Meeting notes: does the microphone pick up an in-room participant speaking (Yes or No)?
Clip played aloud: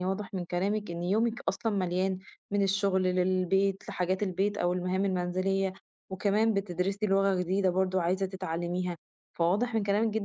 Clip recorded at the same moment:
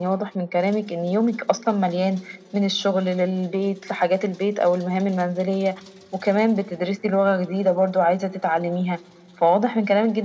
No